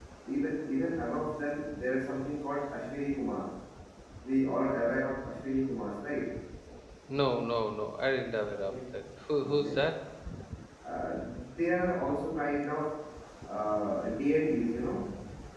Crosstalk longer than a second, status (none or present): none